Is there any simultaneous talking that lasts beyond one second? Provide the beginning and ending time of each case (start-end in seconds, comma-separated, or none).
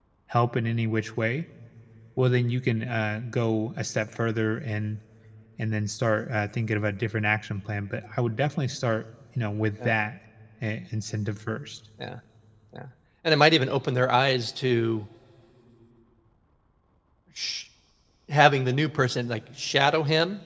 none